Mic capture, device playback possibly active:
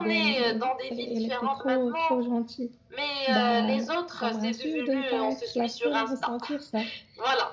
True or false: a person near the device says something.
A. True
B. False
A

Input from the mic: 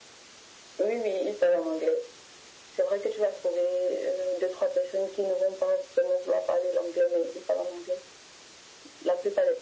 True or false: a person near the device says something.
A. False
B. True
A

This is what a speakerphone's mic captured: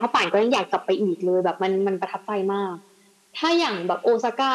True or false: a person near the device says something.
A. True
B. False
B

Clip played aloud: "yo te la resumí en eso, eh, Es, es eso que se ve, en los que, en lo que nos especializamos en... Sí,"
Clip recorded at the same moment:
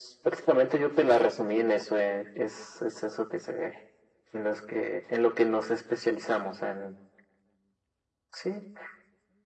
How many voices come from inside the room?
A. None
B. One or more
A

